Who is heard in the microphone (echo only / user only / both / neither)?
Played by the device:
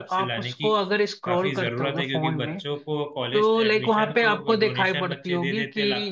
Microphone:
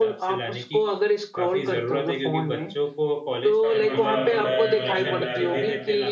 both